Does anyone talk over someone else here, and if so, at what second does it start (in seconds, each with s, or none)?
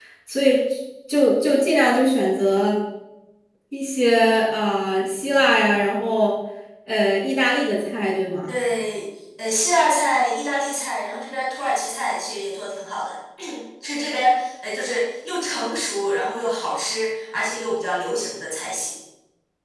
none